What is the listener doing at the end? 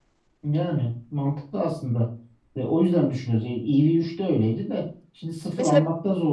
listening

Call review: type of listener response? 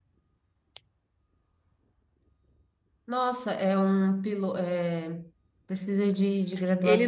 taking over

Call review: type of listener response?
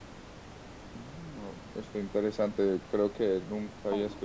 listening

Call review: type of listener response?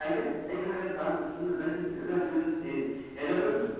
listening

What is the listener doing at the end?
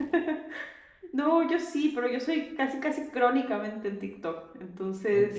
taking over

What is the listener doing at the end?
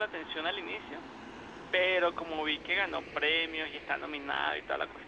listening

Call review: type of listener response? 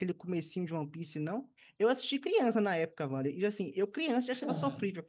listening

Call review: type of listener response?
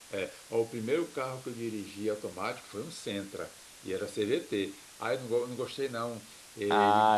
taking over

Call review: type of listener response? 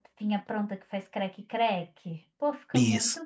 taking over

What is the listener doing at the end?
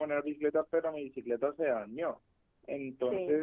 listening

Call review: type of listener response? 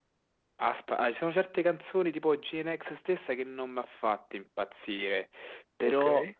listening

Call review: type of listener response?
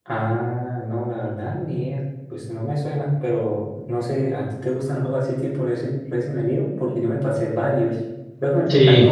listening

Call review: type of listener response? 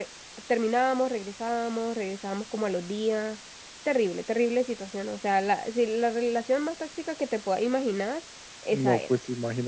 taking over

